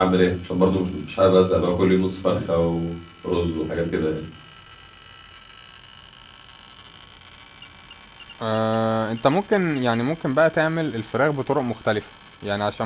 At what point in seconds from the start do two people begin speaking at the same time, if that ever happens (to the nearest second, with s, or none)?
none